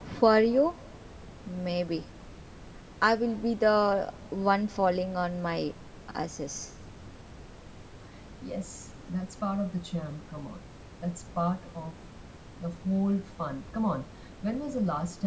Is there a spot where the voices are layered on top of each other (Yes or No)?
No